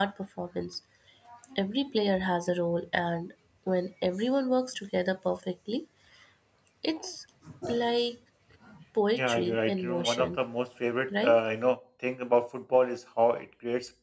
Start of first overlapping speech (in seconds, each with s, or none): 9.1 s